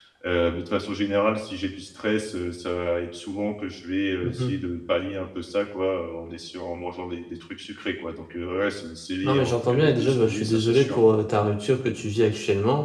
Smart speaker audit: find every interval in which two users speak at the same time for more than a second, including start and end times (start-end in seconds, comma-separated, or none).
9.2-11.0